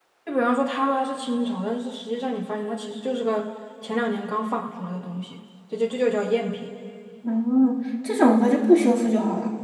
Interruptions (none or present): none